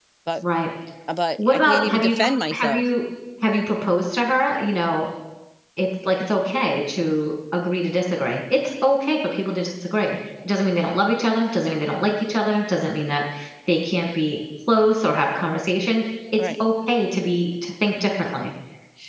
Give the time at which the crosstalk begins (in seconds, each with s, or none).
1.4 s